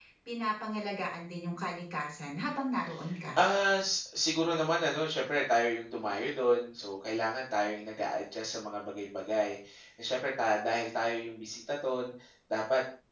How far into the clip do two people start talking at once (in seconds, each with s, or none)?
none